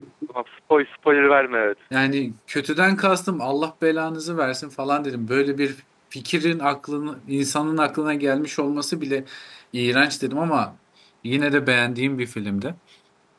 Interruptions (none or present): none